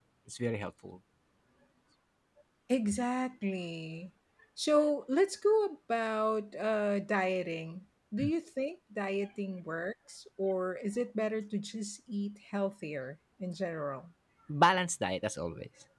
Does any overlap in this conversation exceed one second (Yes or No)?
No